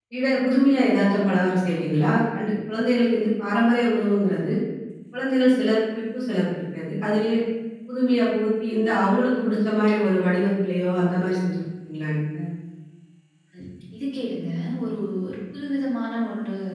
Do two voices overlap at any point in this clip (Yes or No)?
No